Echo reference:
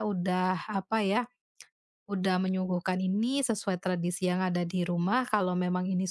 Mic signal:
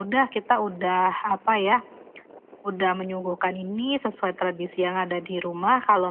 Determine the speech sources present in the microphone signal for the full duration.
echo only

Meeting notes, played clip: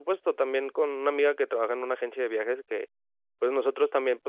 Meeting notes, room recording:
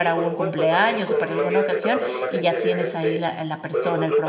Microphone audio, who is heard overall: both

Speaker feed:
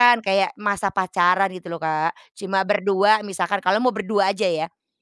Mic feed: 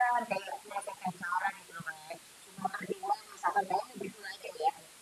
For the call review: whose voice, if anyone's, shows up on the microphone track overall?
echo only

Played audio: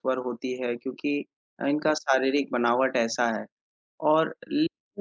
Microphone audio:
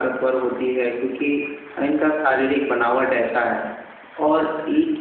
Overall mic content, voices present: echo only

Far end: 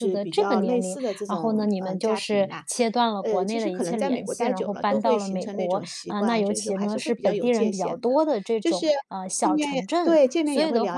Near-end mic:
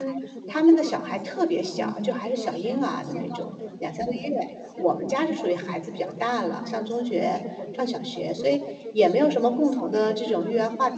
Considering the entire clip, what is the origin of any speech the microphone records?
both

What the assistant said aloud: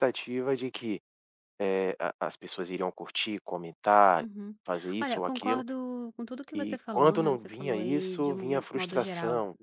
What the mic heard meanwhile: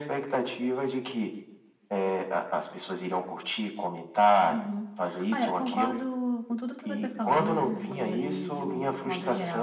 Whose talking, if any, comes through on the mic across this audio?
both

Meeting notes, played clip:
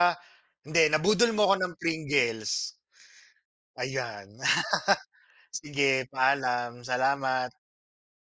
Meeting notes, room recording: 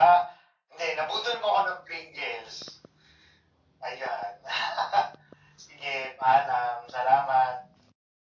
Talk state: echo only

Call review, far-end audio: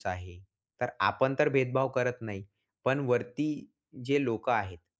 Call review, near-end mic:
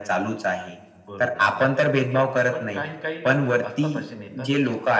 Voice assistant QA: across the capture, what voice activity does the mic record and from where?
both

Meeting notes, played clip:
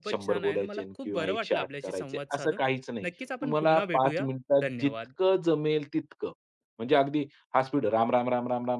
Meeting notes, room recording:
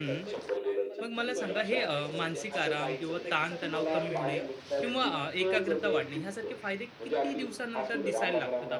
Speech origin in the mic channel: both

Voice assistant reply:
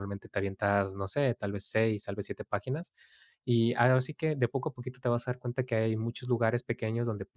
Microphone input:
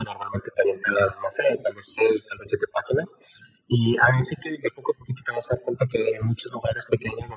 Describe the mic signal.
echo only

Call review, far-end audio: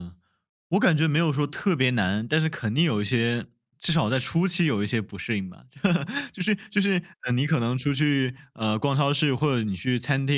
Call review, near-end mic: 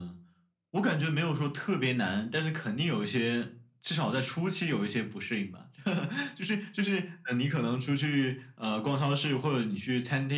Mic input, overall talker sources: echo only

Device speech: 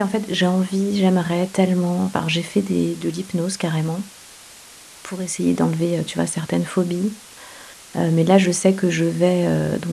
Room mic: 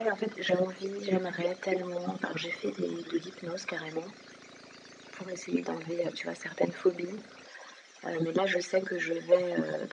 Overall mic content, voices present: echo only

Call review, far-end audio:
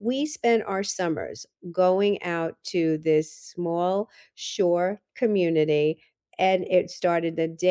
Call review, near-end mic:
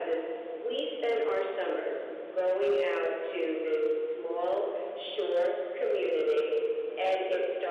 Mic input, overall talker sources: echo only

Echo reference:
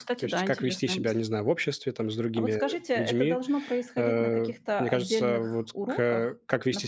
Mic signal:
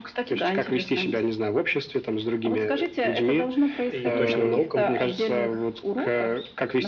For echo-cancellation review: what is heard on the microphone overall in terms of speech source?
both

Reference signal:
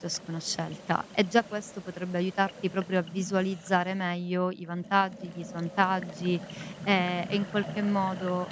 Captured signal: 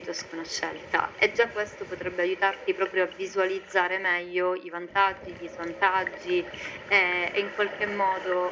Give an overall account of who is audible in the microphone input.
echo only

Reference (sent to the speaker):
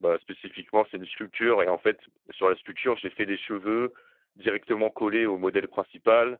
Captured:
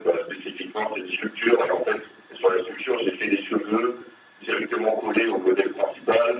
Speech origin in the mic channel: echo only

